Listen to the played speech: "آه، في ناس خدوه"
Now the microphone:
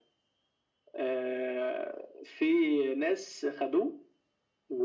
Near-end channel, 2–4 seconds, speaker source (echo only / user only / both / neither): echo only